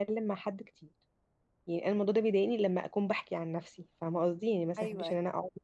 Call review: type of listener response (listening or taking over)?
listening